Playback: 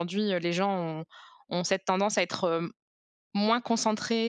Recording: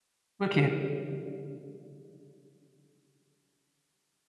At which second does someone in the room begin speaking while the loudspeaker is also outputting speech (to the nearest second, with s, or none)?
0 s